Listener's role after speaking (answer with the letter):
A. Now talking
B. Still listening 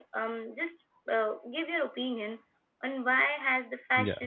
B